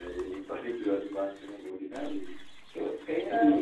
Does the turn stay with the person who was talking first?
Yes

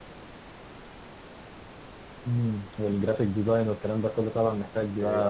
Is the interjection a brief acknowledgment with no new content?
No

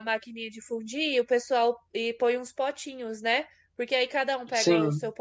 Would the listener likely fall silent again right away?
Yes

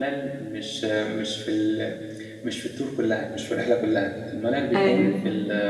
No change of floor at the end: Yes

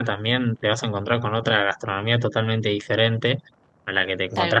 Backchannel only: Yes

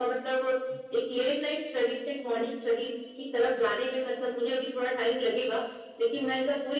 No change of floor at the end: Yes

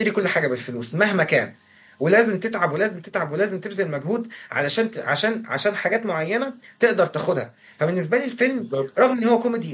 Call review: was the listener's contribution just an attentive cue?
Yes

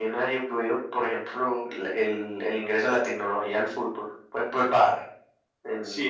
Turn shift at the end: Yes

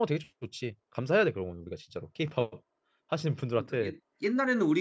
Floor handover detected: Yes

